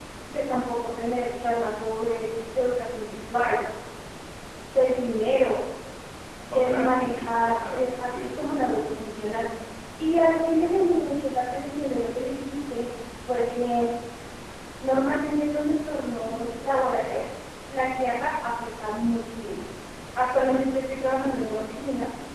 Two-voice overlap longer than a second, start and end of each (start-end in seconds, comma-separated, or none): 6.5-8.7